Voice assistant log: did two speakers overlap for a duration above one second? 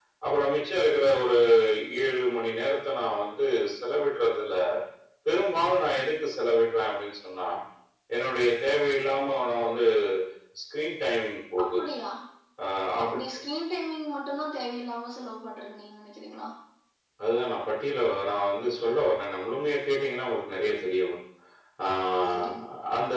No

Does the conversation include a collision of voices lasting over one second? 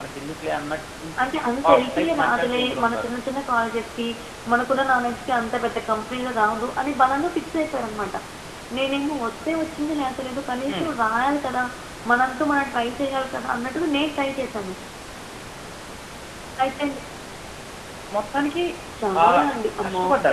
Yes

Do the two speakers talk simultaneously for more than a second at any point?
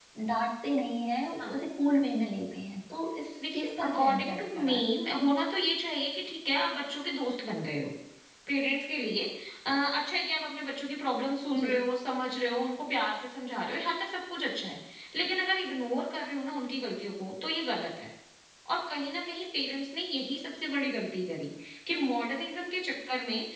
Yes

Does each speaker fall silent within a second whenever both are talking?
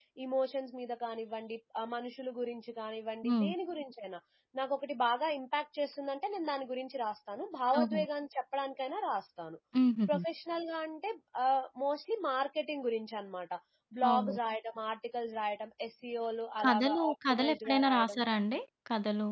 No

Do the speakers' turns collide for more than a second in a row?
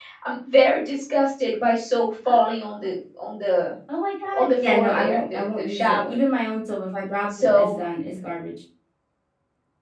Yes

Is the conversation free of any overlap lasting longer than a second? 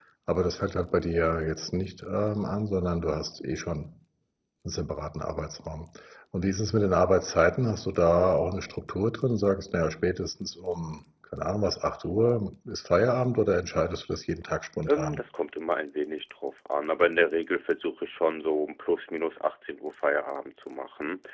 Yes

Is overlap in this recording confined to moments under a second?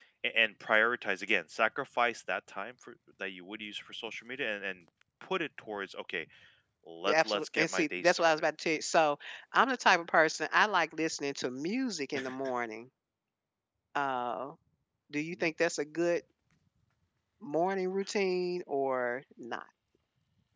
No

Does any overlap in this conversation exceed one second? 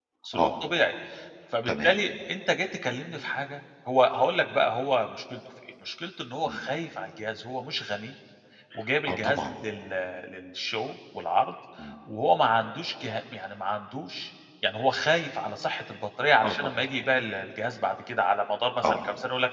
No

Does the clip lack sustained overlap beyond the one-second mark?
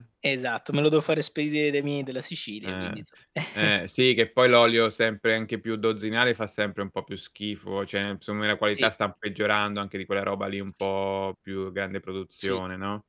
Yes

